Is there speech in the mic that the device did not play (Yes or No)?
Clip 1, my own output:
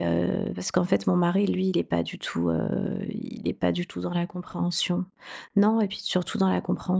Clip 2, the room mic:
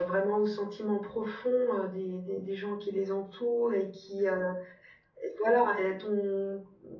Yes